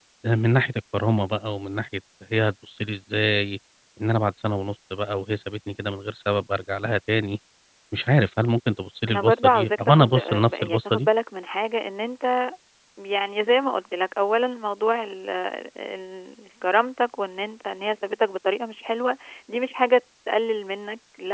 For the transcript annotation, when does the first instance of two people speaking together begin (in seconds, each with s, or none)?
9.1 s